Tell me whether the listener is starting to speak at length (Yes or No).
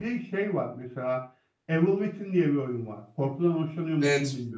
Yes